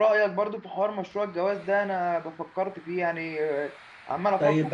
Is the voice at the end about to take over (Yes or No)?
Yes